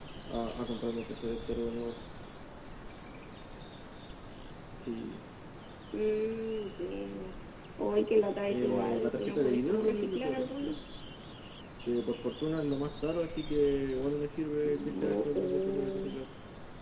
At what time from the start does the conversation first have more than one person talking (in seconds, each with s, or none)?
8.5 s